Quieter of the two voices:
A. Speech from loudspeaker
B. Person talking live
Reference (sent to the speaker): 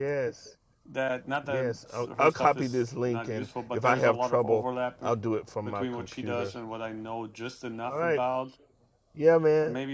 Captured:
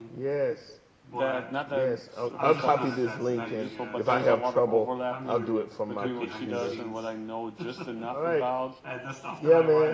B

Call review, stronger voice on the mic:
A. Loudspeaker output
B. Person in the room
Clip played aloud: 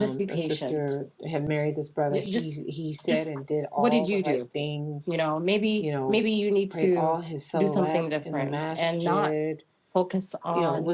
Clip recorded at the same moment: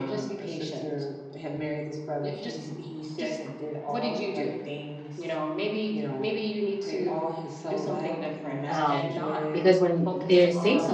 B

